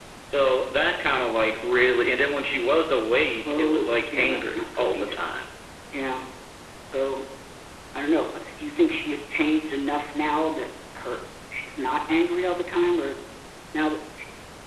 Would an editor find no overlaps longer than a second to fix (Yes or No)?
No